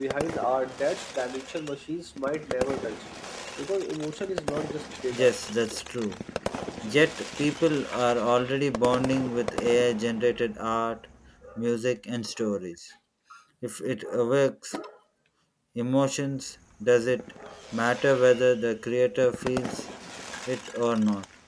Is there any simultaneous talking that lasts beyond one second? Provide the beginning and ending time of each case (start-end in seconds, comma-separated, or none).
none